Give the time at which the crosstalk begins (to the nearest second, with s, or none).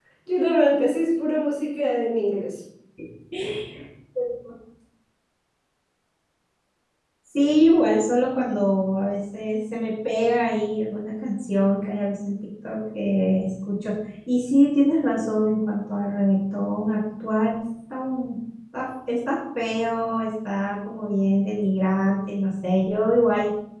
none